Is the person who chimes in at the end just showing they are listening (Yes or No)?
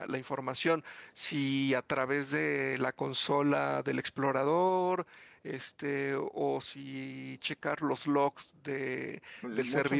No